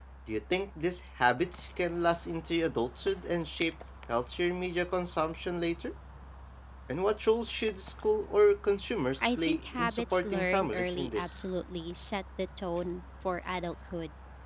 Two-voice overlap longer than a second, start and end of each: 9.2-11.4

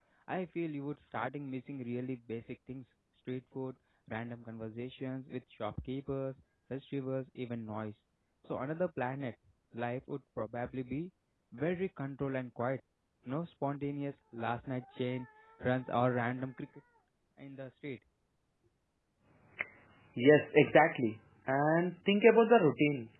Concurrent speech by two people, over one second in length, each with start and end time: none

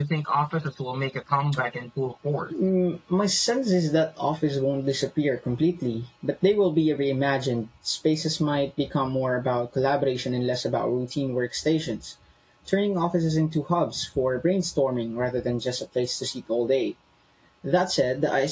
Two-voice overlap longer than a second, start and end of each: none

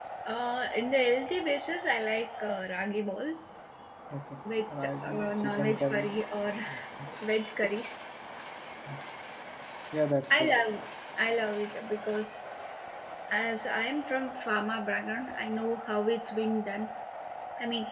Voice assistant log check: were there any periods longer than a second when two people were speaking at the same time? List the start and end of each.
4.8-6.1

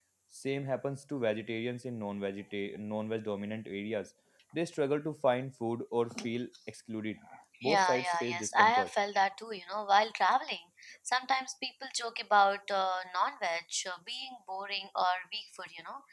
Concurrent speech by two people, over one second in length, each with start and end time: 7.6-8.9

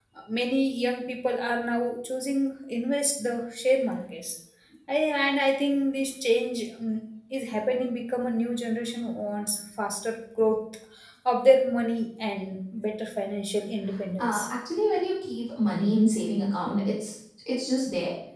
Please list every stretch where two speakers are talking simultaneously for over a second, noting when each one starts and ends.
none

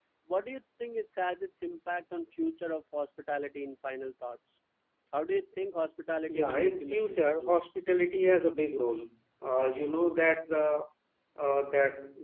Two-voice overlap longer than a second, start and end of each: 6.3-7.5

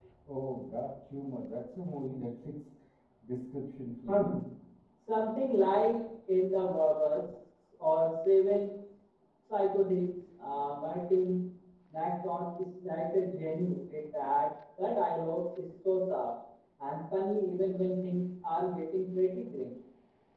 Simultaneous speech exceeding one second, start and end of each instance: none

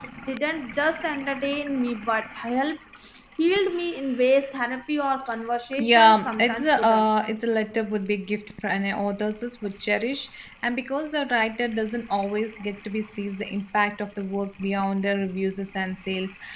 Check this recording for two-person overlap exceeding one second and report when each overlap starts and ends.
5.8-7.0

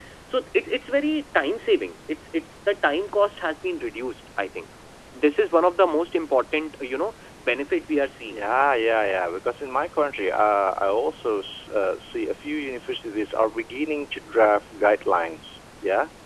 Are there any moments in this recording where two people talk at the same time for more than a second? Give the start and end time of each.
none

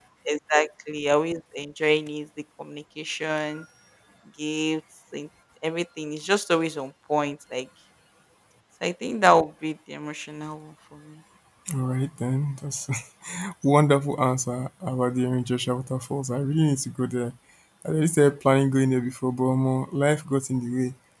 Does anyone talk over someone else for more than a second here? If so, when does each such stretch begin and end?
none

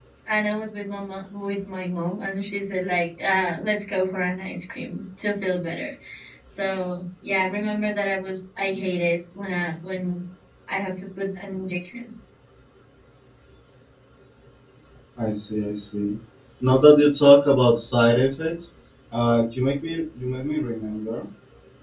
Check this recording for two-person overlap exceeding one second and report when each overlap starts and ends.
none

